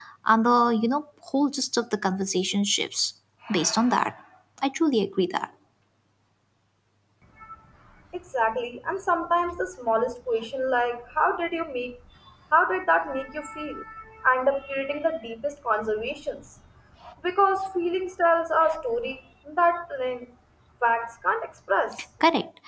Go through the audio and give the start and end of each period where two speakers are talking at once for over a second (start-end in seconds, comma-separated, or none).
none